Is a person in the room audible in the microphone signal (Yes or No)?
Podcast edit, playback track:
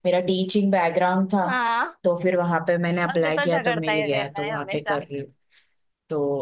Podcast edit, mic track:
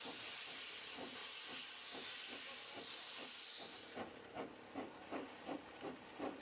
No